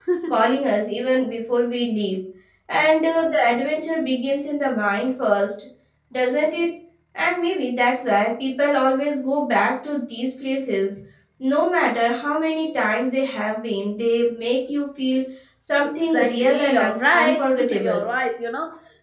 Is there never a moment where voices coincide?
No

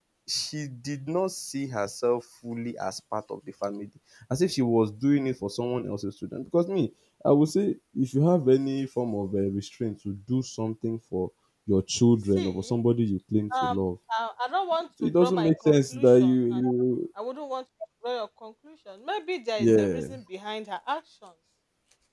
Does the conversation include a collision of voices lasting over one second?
Yes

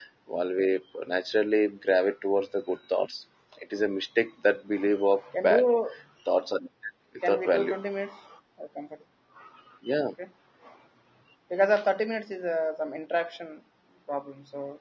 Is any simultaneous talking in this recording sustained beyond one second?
No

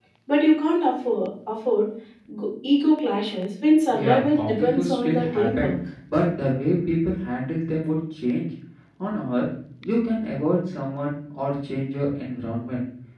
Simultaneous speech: Yes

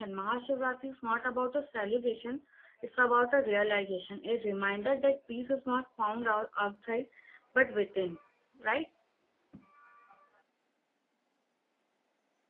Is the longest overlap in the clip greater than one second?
No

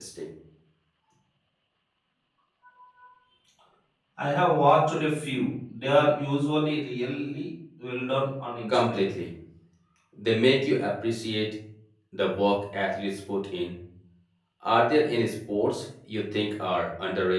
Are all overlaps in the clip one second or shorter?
Yes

